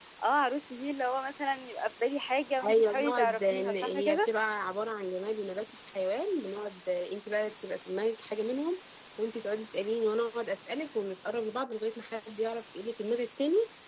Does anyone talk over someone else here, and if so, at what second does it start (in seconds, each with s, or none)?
2.6 s